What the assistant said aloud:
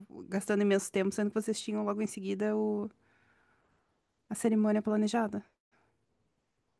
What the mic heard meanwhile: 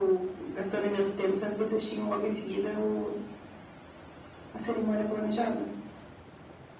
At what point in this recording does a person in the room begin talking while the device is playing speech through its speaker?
none

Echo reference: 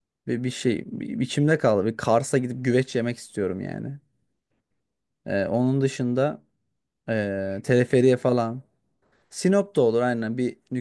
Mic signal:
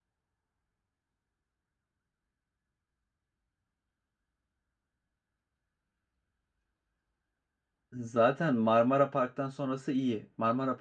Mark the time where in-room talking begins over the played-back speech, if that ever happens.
7.9 s

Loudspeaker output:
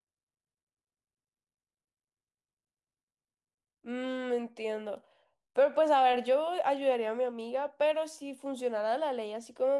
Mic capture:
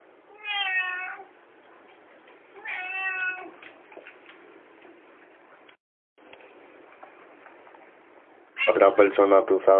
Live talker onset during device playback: 8.6 s

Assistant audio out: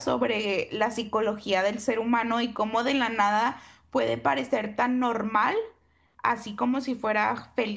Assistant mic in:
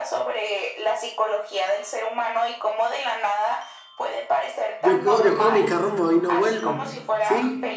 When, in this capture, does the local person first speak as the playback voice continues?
4.8 s

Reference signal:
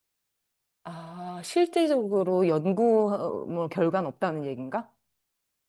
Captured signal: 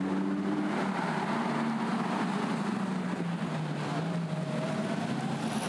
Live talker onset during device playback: none

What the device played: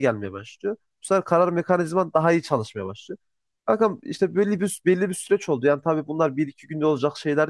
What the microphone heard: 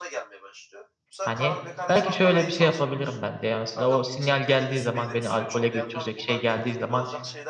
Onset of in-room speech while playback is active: 1.2 s

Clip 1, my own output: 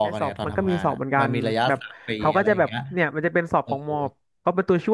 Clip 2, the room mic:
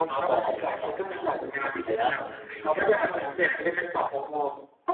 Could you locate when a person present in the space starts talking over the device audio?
2.0 s

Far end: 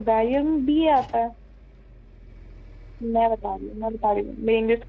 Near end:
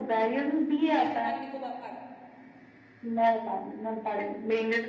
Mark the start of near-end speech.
1.0 s

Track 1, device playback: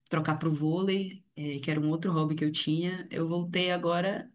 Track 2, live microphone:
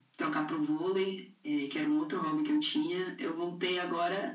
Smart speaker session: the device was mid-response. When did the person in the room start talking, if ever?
none

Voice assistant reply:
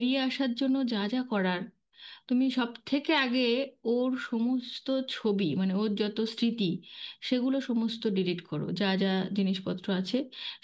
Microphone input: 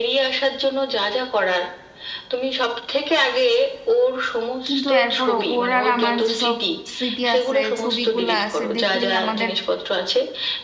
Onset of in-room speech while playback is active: 4.7 s

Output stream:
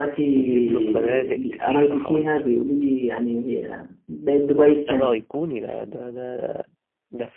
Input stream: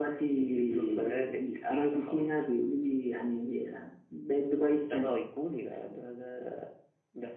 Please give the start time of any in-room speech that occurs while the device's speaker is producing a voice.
none

